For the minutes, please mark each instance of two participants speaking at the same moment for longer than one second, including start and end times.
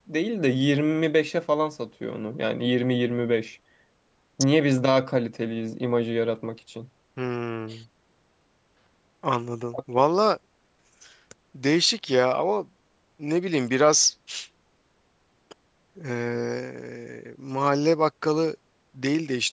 none

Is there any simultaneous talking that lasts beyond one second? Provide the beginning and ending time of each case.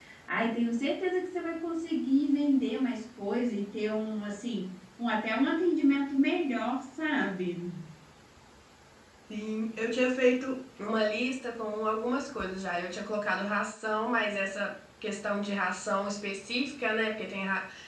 none

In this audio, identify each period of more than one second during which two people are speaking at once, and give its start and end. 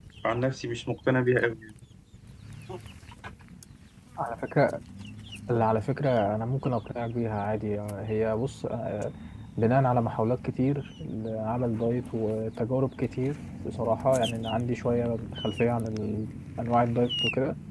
none

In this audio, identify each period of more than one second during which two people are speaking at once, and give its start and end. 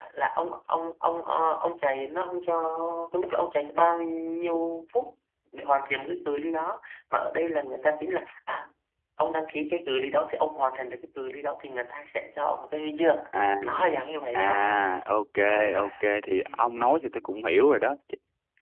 none

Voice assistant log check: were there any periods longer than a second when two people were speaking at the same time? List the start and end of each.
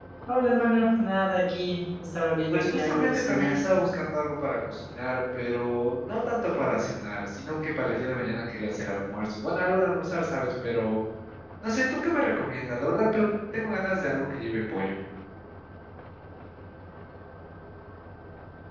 2.5-3.8

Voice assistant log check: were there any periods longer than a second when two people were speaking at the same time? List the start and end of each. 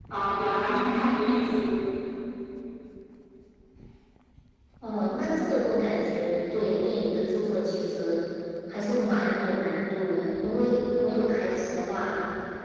none

